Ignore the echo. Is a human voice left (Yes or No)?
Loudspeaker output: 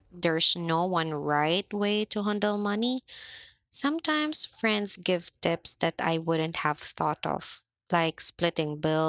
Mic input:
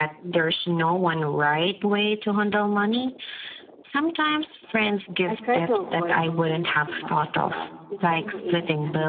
Yes